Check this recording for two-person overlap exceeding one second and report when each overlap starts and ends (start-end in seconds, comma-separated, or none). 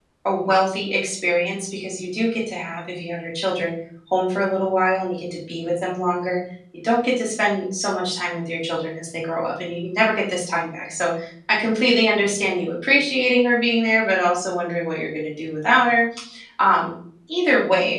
none